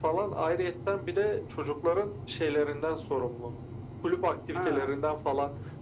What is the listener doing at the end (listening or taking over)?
listening